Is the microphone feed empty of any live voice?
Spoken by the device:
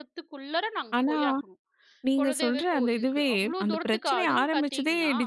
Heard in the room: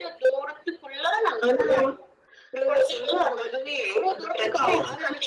Yes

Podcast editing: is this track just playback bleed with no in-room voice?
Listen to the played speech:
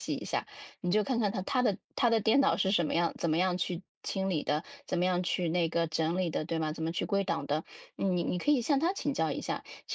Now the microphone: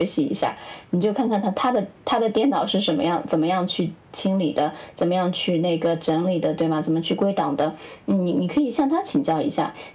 Yes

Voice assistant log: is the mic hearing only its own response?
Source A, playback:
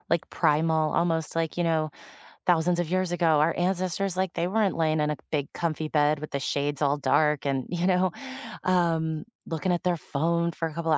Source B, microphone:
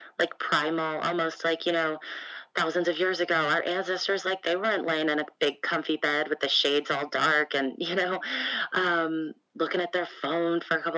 Yes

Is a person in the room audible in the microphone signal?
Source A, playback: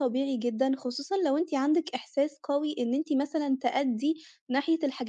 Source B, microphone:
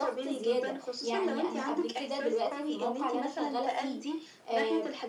Yes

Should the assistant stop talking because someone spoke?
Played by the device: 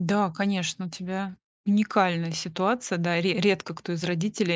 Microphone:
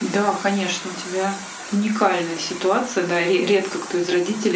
No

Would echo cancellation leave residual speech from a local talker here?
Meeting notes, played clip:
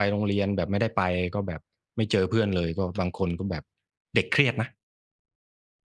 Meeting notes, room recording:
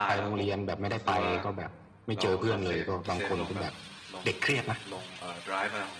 Yes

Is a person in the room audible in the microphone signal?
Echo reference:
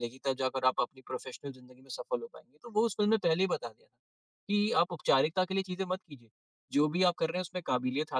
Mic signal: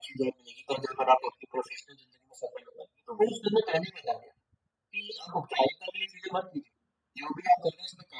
No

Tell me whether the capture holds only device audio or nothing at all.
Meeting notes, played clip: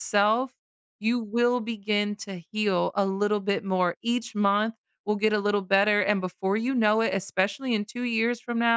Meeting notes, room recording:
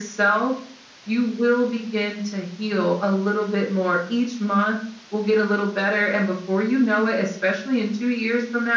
Yes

